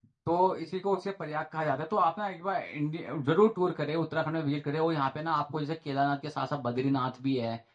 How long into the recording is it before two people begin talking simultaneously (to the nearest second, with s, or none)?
none